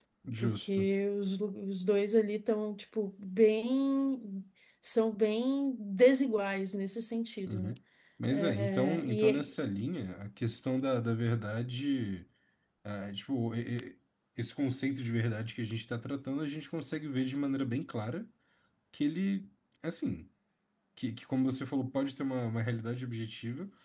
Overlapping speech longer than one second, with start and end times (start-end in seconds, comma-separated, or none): 8.3-9.5